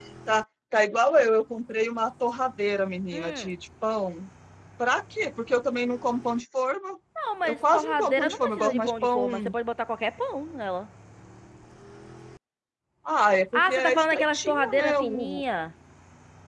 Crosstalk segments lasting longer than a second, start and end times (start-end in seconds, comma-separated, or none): 7.4-9.3, 13.5-15.4